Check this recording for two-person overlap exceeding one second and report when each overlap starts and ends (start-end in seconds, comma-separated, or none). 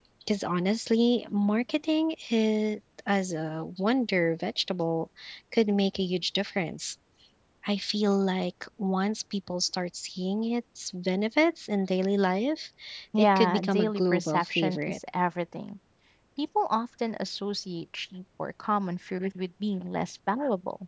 13.2-15.0